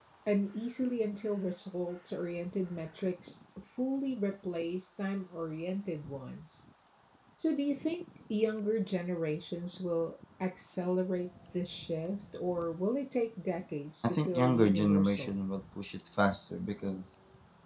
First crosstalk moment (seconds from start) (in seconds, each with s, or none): 14.0 s